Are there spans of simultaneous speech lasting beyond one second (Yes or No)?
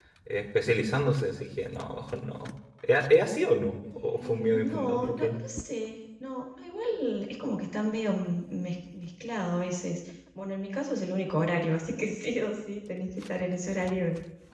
Yes